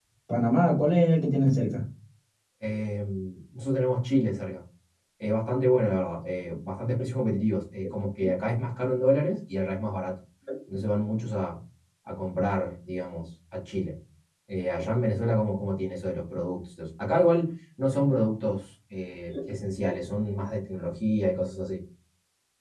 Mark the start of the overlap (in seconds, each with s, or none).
none